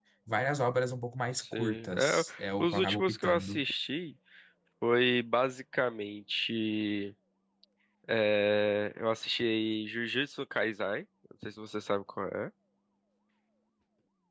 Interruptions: present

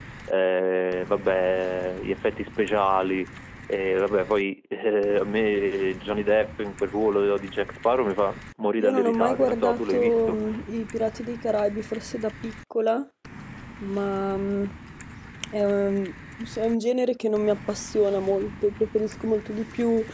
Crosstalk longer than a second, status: present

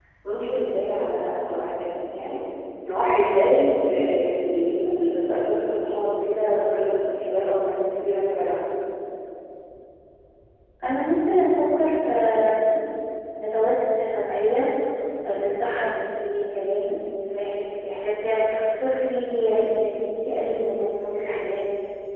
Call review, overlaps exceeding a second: none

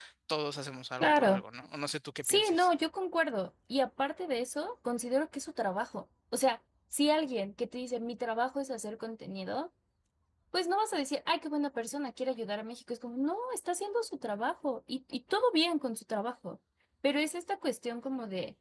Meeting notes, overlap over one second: none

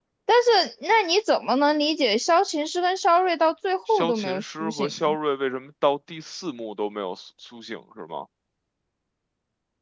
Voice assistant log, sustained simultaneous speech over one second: present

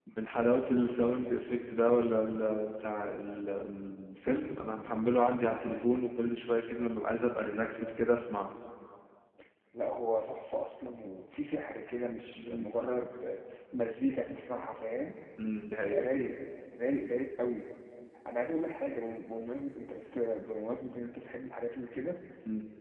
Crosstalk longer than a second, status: none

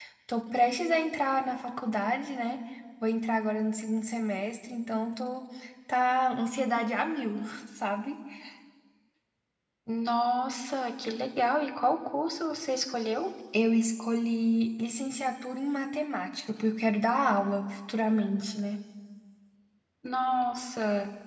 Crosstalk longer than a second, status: none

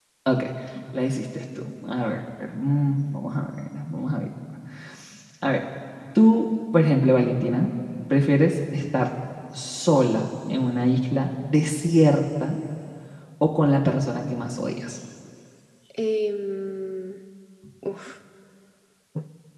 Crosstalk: none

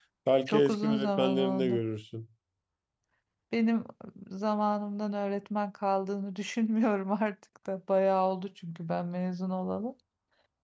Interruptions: present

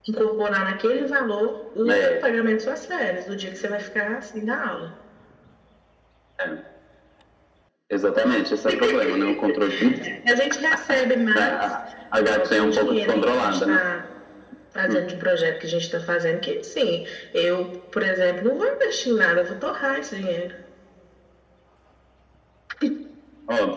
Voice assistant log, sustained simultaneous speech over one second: present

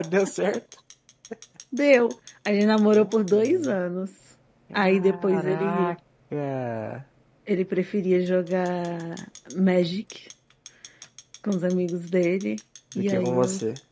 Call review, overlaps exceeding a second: present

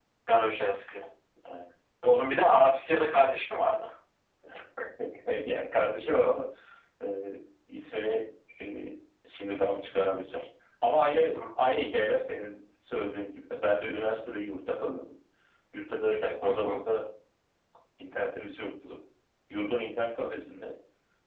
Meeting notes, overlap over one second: none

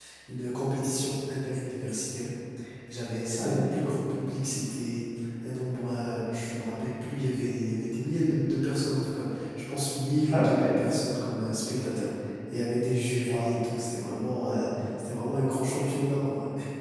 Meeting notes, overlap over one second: none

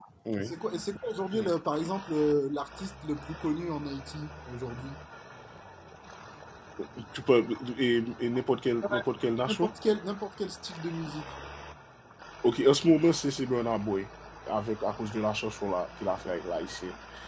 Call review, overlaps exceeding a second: none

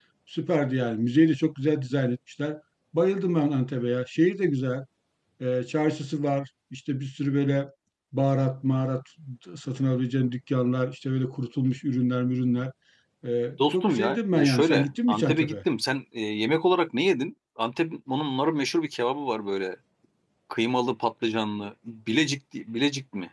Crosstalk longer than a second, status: present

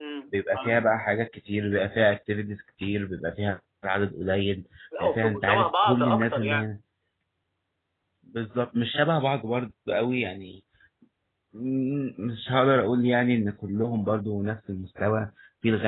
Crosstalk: present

